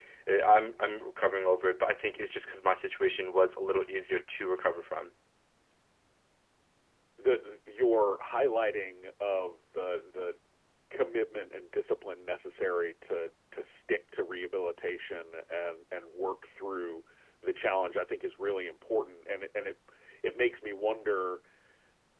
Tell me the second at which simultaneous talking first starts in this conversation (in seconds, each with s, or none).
none